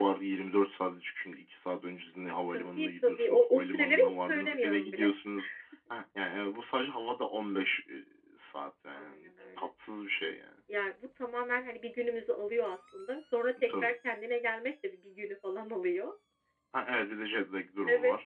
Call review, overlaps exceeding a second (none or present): present